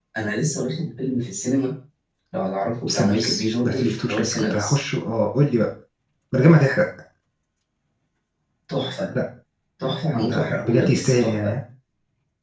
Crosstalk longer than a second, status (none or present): present